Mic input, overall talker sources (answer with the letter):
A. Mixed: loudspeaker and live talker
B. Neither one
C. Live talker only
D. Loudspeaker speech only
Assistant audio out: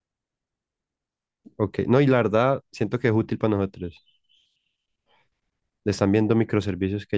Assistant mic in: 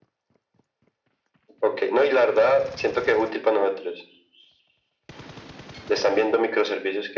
D